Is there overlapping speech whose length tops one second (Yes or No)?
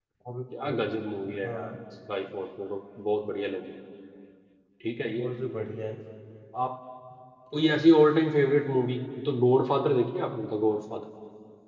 No